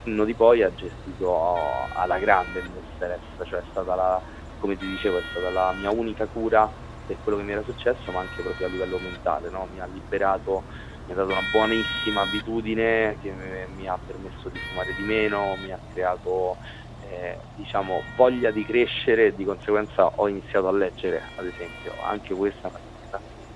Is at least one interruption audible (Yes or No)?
No